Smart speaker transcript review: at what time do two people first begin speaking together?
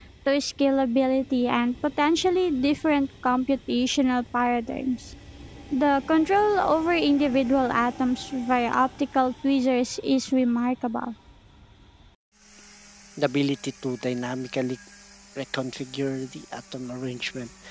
none

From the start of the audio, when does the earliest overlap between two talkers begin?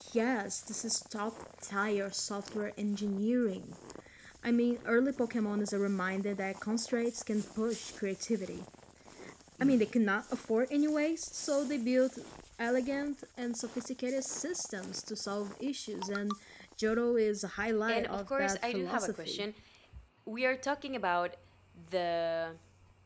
17.9 s

